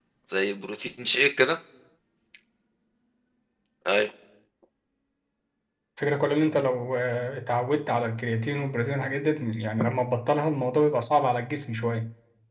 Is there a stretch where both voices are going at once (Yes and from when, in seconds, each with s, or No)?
No